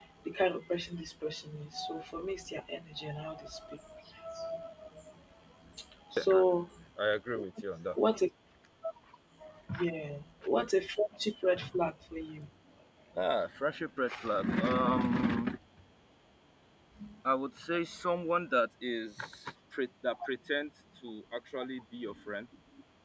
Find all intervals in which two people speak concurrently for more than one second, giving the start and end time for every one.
none

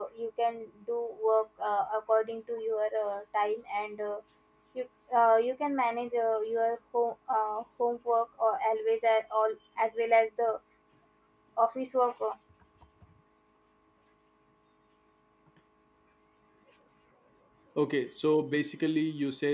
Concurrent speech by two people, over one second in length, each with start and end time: none

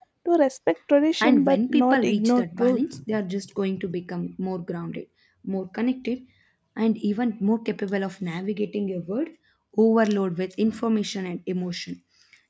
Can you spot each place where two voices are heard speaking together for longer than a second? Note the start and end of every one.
1.2-2.8

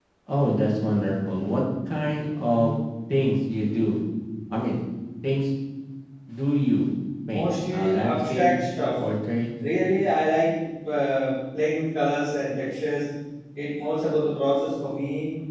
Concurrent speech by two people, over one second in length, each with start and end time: 7.3-8.6

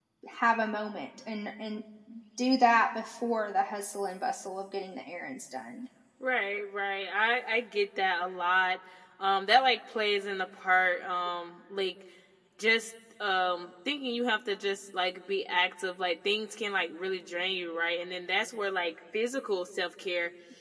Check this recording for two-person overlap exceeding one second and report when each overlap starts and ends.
none

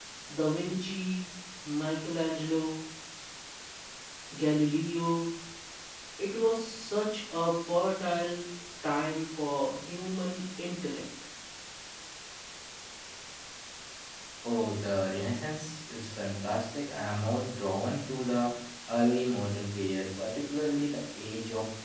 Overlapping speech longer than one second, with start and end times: none

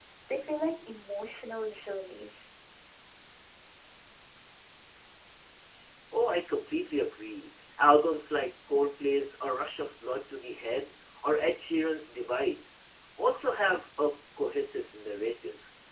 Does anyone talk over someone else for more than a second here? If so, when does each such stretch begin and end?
none

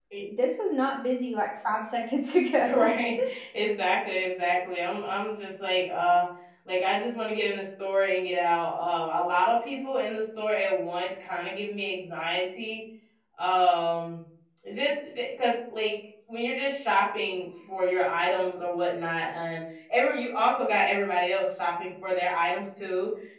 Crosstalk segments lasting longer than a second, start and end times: none

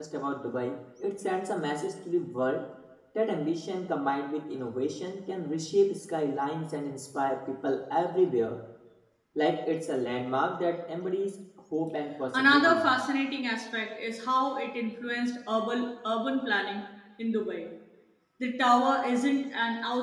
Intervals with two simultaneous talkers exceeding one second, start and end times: none

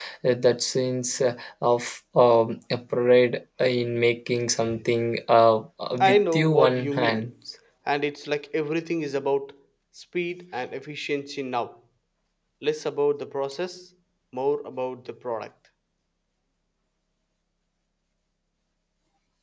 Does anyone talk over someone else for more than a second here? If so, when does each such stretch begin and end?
6.0-7.2

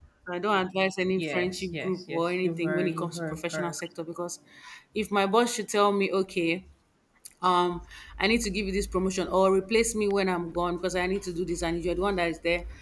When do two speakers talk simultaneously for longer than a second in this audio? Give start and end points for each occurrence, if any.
1.2-3.8

